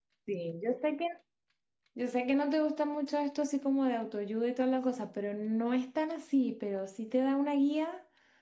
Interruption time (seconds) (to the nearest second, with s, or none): none